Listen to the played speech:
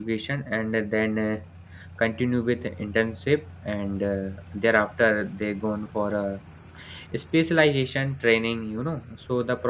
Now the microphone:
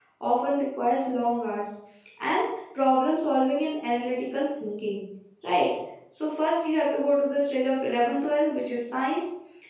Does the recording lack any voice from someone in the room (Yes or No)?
No